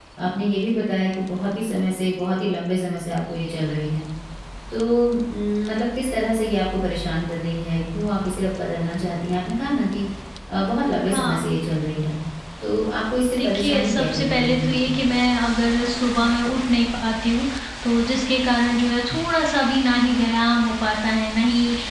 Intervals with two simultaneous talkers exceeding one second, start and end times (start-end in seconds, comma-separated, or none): 13.3-14.8